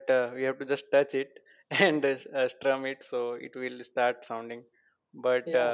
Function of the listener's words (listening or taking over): listening